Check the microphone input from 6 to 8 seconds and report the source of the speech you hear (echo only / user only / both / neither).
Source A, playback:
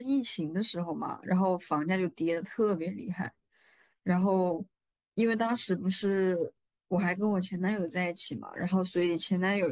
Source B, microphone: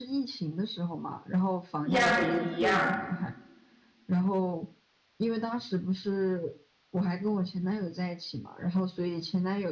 echo only